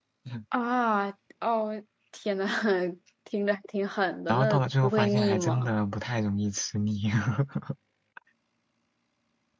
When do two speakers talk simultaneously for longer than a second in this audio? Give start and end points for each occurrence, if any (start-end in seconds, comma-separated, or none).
4.3-5.7